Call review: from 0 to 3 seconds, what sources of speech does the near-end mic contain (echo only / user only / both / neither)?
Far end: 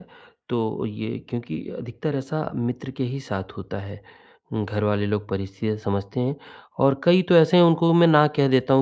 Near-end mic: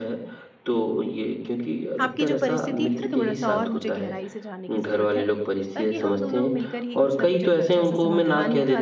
both